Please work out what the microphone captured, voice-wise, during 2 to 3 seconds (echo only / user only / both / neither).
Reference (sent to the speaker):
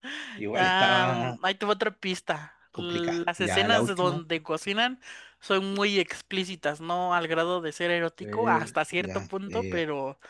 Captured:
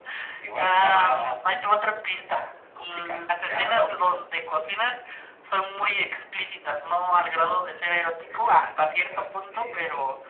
echo only